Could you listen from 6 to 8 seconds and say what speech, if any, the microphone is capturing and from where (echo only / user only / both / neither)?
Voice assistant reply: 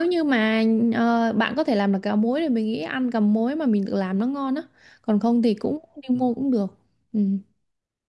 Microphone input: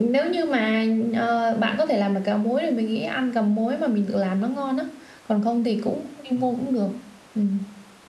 echo only